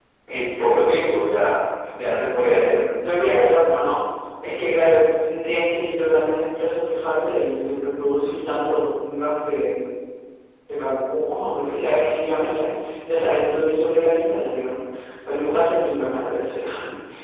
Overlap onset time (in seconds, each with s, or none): none